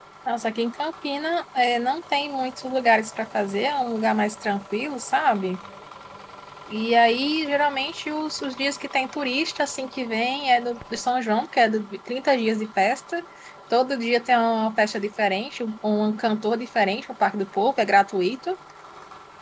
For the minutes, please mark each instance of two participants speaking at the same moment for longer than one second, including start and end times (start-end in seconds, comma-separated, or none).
none